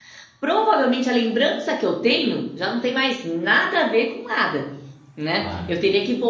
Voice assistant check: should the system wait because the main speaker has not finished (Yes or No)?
Yes